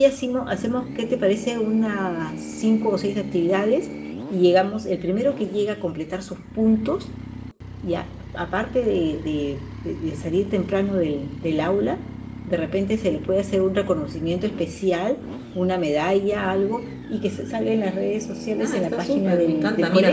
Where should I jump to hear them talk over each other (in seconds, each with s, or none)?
18.6 s